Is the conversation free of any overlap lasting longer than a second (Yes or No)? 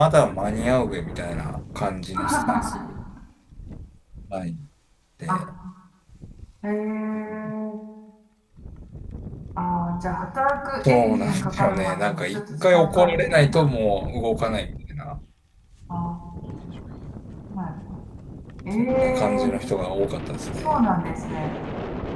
No